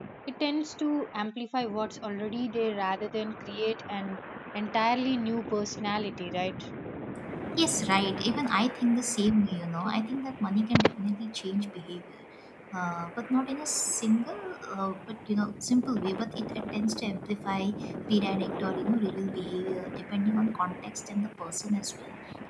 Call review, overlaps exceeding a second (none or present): none